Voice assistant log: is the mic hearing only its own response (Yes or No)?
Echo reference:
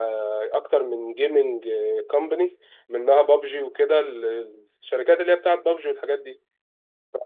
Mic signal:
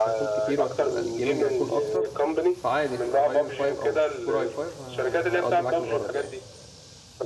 No